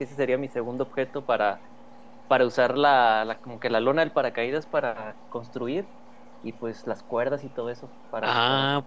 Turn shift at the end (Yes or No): Yes